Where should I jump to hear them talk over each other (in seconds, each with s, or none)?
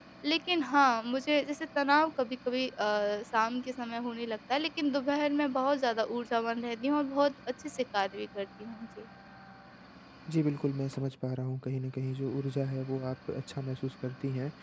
none